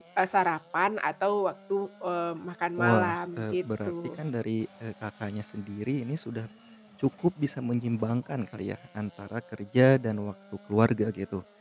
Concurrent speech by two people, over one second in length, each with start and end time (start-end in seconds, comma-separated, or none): 2.8-4.2